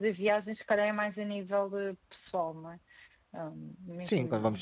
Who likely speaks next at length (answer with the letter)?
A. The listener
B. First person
A